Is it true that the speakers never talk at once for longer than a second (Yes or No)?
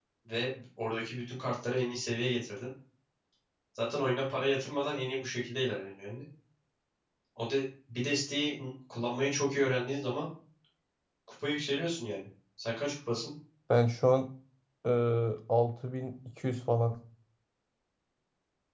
Yes